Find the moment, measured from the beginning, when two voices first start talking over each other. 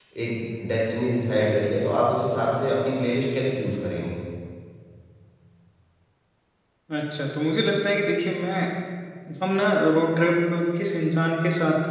none

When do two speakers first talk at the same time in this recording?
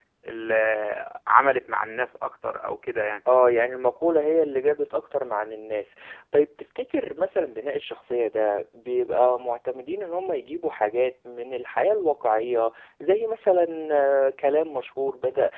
none

